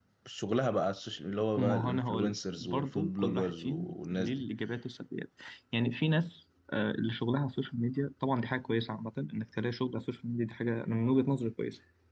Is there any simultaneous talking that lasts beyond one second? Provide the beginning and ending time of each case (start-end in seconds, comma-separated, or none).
1.6-4.5